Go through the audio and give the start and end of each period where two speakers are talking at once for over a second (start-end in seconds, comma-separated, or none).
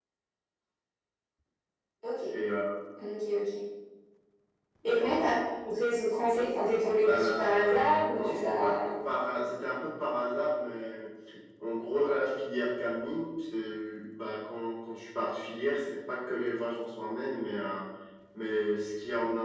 7.0-8.8